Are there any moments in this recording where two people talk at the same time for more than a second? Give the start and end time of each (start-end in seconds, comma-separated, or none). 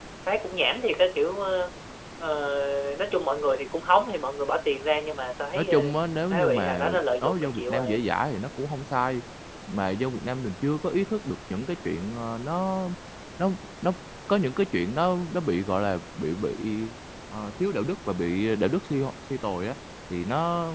6.3-7.9